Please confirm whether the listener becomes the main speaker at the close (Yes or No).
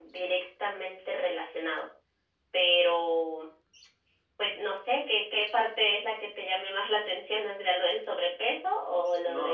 Yes